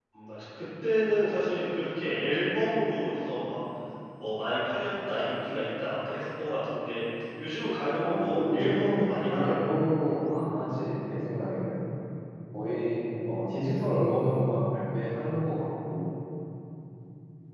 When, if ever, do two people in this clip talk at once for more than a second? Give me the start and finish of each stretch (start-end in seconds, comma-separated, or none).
8.0-9.6